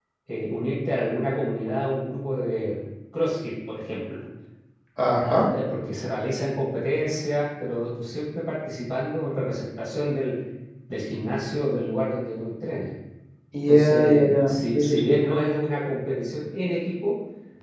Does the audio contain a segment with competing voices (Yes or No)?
Yes